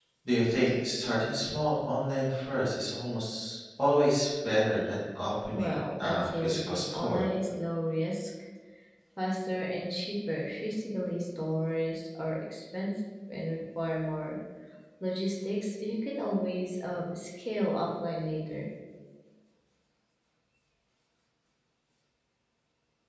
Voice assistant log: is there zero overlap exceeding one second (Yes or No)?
No